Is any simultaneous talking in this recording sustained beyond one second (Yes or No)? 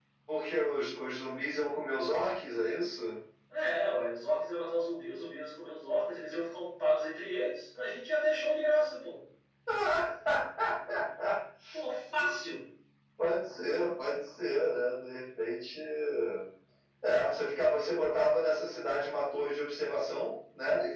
No